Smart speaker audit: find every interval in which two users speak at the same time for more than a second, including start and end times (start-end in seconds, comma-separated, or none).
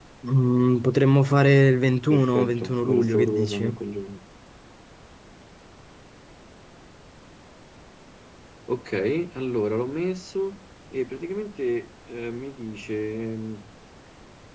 2.1-3.8